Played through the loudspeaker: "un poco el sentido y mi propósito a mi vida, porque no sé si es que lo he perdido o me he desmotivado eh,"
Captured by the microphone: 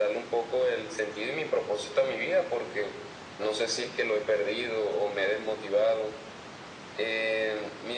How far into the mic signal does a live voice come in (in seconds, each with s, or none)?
none